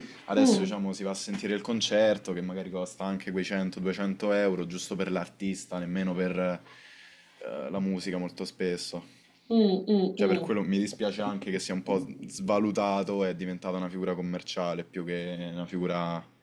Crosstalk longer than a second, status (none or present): none